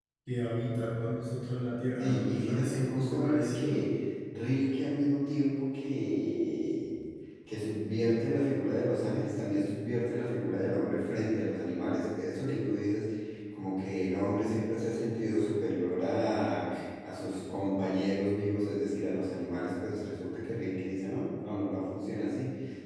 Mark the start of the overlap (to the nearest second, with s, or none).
2 s